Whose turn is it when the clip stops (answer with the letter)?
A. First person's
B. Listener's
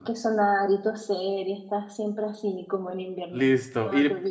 B